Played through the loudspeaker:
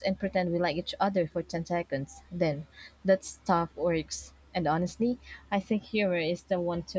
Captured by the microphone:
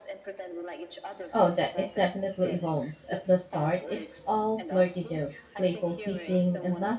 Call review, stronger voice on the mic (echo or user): user